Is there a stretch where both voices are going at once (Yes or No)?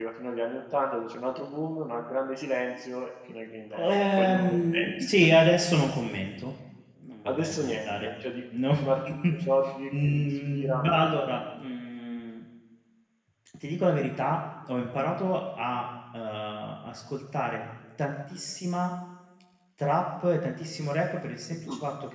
Yes